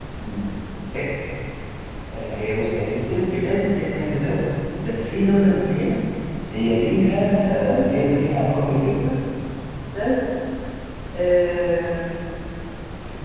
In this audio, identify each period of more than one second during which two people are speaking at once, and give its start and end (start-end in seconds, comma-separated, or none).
7.5-9.0